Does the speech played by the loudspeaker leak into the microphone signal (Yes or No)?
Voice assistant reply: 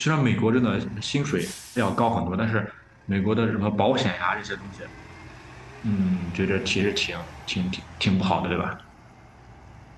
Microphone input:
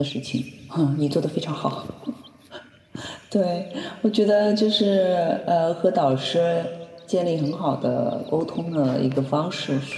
No